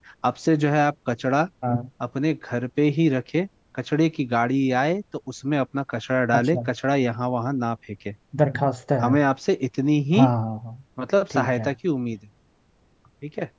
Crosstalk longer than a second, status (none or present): none